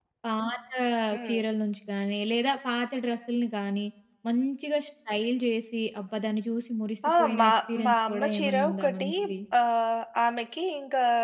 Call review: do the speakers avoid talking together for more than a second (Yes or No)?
No